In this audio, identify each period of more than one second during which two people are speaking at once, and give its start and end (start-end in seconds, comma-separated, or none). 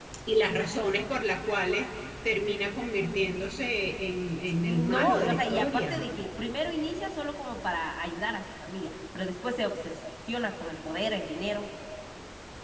4.5-6.0